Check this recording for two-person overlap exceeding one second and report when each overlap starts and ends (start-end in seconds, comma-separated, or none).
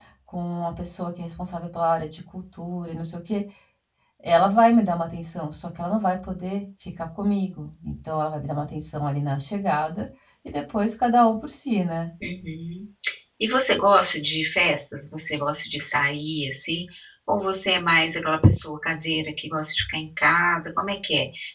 none